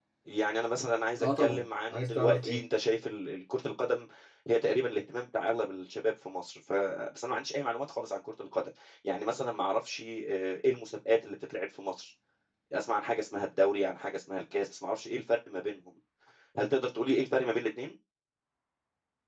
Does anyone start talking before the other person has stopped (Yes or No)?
Yes